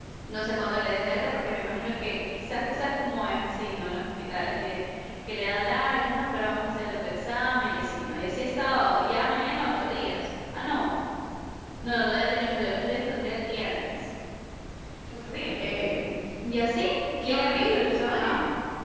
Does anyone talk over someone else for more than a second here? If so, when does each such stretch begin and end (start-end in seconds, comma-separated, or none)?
none